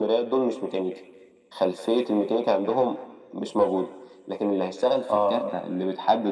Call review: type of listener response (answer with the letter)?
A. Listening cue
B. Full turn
A